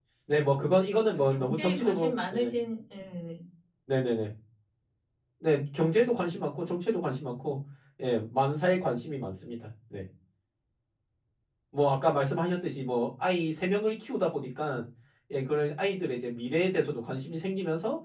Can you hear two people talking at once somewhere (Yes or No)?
Yes